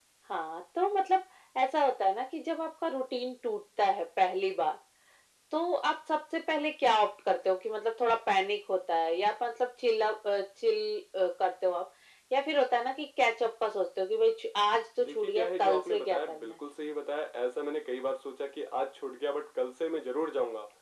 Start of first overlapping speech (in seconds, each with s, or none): 15.0 s